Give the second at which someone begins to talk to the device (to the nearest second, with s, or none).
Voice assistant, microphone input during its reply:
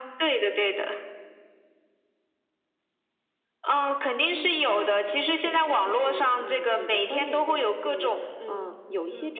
none